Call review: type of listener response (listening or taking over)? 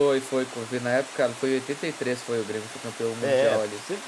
taking over